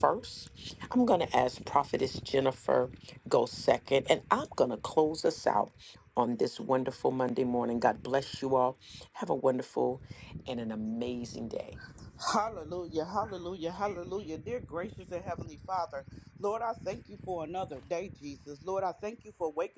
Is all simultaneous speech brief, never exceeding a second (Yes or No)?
Yes